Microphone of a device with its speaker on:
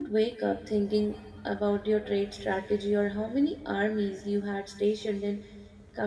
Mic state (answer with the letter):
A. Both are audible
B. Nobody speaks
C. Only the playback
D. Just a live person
D